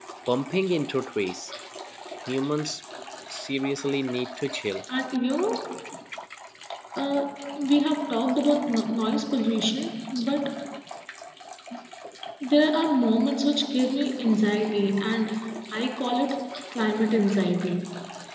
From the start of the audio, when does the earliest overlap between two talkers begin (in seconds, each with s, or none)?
none